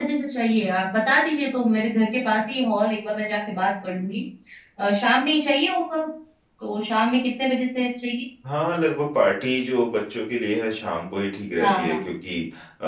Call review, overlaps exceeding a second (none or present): none